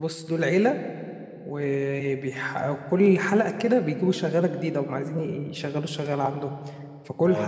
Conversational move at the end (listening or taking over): listening